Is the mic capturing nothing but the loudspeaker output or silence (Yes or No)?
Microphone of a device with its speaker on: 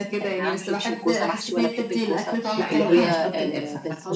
No